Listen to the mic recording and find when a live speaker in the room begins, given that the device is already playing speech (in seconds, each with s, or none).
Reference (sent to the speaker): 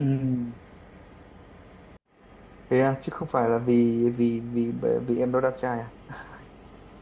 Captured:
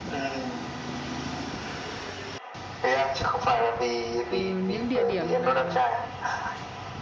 4.3 s